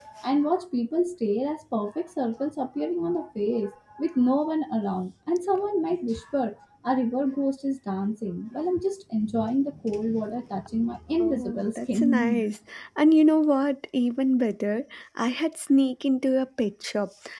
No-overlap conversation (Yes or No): No